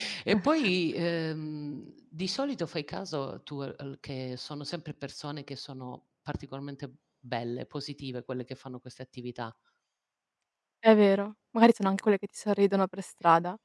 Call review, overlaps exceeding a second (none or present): none